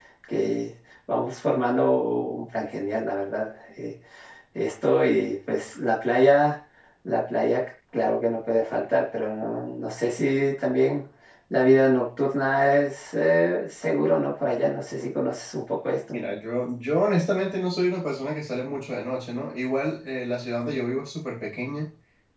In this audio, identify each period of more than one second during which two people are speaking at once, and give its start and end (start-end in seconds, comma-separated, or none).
none